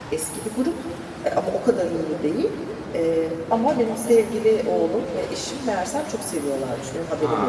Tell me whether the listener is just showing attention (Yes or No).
Yes